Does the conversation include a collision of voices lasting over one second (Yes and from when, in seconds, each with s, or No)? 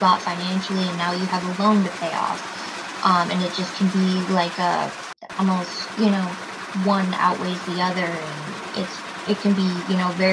No